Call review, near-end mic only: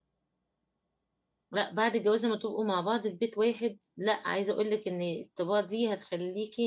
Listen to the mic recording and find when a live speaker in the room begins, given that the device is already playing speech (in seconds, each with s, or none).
1.5 s